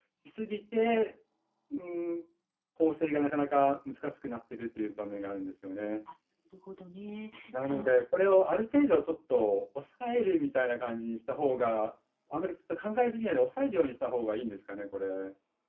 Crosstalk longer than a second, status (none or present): none